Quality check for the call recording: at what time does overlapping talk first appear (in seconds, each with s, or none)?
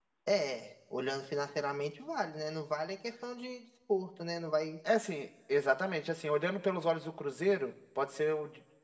none